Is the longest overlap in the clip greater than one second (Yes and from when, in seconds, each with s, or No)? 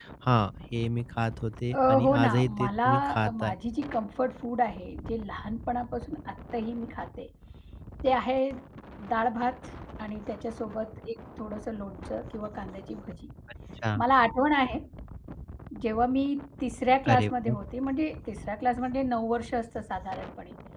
Yes, from 1.7 s